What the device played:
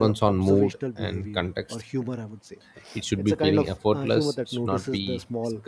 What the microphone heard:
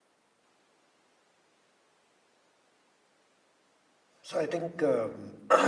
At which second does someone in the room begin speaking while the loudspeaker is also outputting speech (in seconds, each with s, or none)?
4.2 s